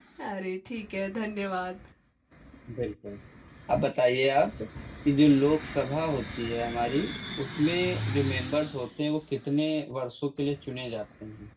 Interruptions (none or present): none